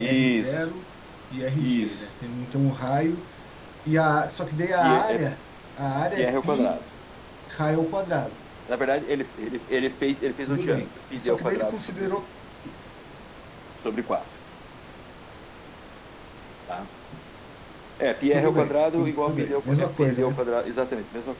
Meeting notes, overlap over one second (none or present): present